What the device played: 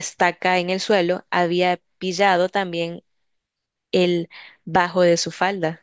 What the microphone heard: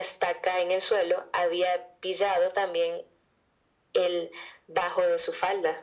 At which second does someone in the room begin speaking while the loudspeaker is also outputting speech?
none

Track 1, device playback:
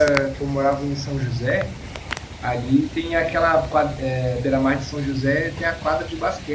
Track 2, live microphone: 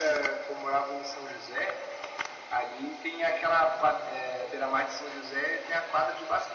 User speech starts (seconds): none

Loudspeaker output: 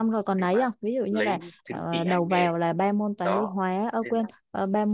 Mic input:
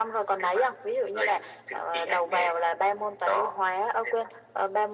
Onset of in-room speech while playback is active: none

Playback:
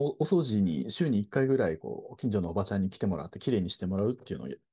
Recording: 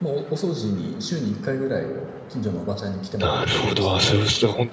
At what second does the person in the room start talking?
3.2 s

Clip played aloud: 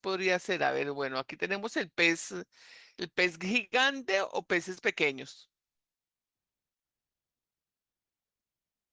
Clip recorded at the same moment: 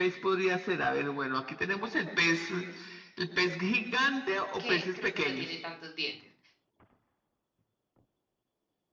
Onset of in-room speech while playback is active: 4.6 s

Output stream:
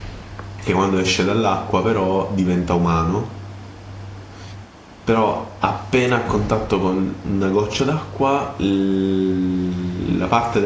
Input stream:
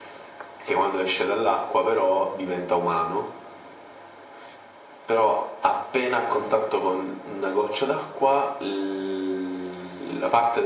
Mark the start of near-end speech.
none

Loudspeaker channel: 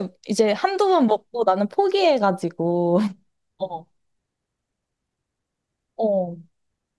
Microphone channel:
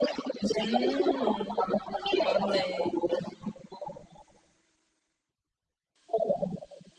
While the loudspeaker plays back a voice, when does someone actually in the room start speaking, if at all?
0.6 s

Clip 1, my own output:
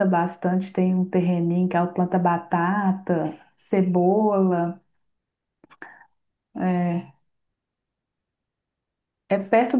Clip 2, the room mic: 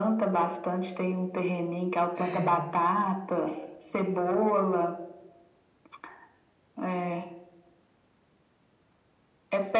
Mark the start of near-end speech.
2.2 s

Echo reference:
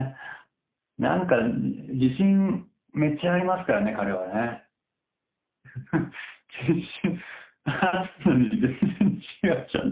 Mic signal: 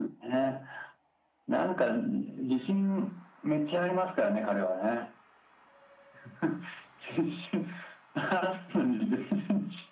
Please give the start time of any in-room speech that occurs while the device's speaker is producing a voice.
none

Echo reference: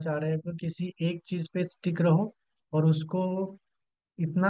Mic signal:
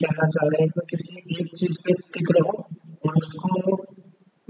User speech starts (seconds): none

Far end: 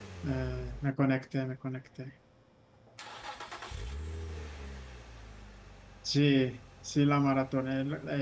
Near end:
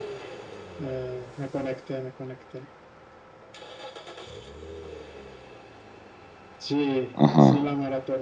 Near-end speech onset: 7.1 s

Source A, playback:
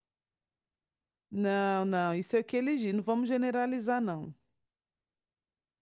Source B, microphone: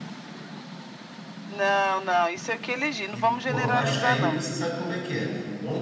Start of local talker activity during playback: 3.1 s

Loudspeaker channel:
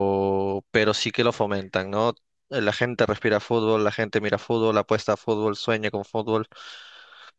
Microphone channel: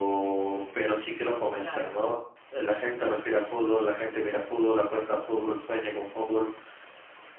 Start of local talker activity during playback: 1.5 s

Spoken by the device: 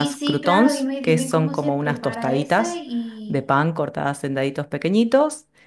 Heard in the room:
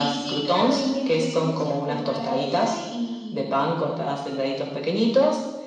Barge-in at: none

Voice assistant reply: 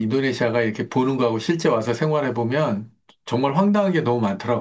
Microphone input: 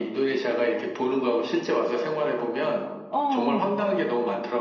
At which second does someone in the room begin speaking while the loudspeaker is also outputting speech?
3.1 s

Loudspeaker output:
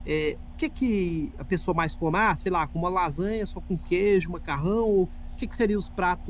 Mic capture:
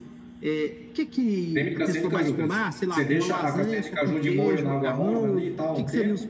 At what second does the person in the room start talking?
1.5 s

